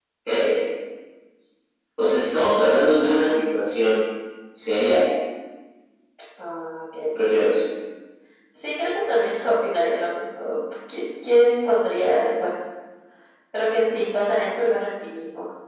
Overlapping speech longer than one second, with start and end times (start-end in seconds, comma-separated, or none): none